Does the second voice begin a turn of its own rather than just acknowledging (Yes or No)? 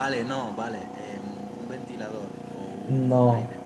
Yes